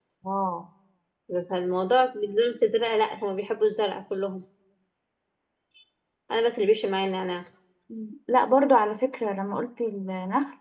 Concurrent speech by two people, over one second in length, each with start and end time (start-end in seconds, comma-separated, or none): none